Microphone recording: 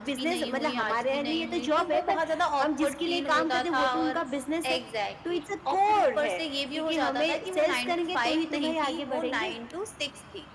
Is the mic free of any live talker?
Yes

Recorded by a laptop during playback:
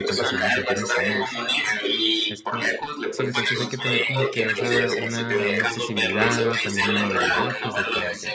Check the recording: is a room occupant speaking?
Yes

